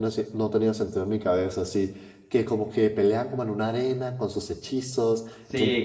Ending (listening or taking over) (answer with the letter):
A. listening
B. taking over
B